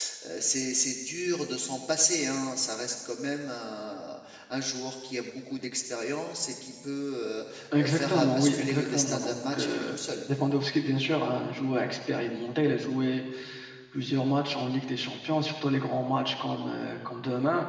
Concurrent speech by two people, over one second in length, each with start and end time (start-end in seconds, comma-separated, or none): 7.8-10.0